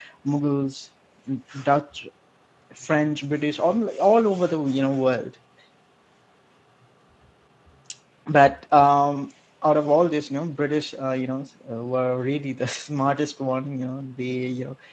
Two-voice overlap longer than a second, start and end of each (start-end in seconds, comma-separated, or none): none